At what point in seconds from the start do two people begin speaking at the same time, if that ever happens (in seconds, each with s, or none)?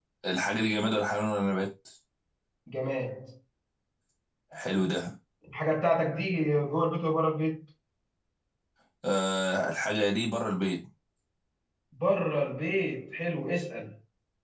none